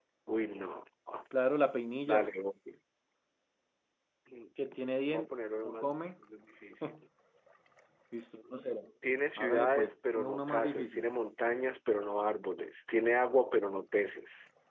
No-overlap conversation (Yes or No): No